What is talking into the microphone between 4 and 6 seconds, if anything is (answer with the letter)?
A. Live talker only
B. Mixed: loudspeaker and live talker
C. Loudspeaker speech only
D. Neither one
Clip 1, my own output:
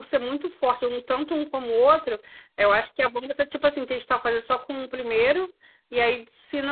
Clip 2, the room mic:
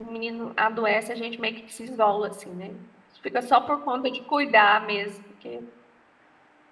A